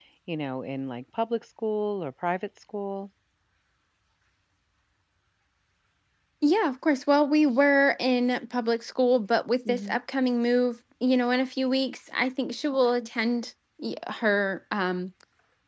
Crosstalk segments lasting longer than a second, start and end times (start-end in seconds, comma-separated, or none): none